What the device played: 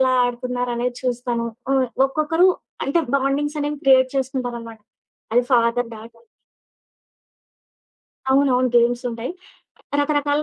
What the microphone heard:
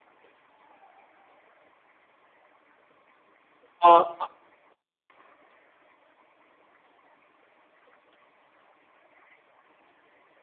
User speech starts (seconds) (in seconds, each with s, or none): 3.9 s